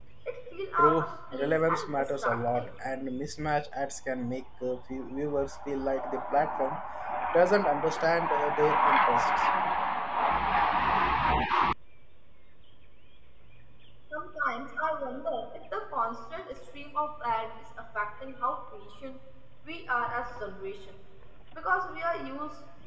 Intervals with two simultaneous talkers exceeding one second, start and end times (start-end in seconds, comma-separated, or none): 0.8-2.7